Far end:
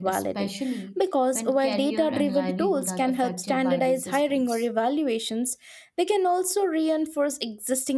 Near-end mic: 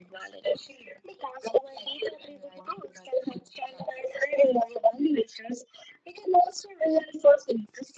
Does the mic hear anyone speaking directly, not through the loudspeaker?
No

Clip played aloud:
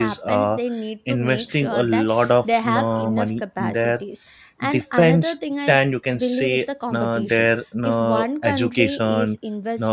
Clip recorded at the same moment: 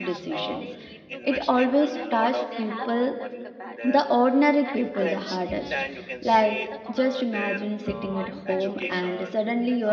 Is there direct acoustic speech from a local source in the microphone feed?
Yes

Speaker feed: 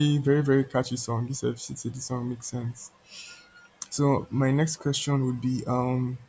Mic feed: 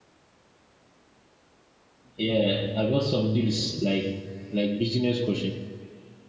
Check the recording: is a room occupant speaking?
Yes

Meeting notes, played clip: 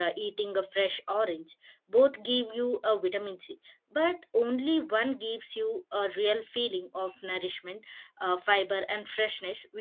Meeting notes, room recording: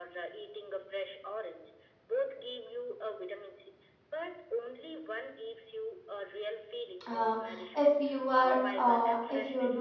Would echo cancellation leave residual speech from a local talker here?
Yes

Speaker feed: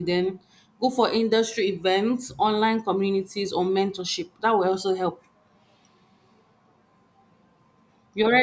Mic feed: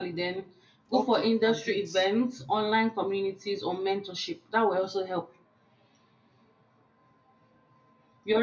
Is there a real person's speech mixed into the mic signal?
Yes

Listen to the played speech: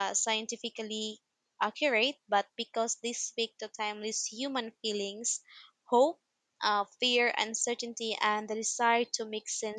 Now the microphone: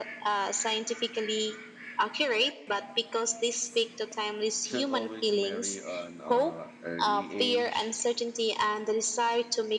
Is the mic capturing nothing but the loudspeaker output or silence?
No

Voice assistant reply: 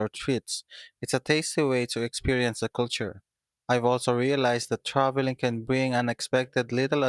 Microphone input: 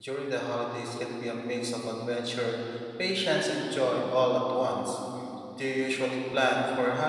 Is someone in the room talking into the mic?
Yes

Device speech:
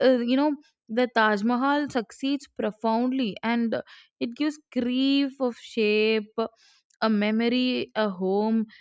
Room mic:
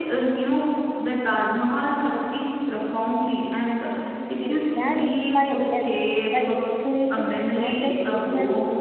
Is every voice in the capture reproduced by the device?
No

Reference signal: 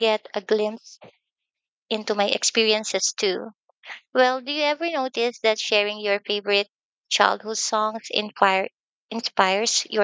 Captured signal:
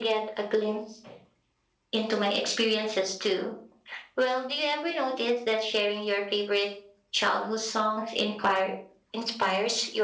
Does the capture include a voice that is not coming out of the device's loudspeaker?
No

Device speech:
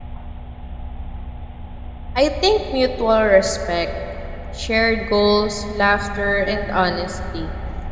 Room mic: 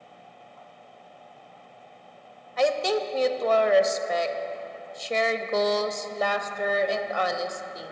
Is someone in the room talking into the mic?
No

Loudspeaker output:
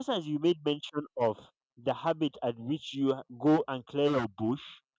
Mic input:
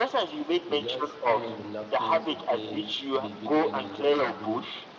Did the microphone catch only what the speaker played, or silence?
No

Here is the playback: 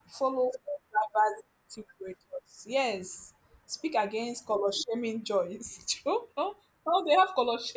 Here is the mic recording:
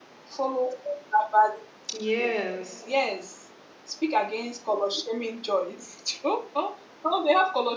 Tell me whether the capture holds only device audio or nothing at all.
No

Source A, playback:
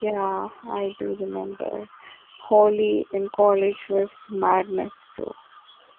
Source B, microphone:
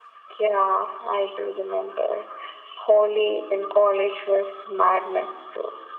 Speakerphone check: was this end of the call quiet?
Yes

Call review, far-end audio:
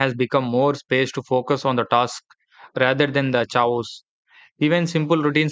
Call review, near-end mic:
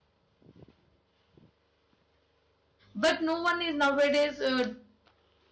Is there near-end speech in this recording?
Yes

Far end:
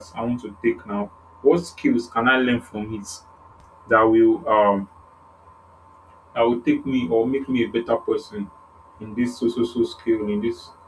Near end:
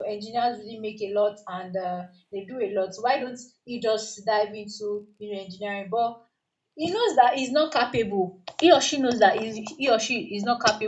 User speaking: Yes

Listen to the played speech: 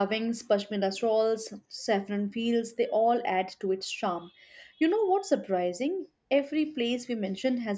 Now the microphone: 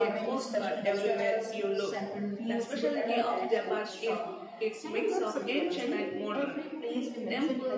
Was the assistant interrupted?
Yes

